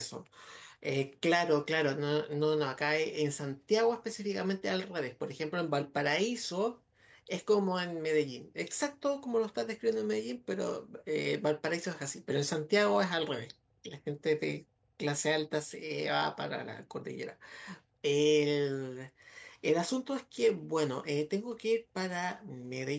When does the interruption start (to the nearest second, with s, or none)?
none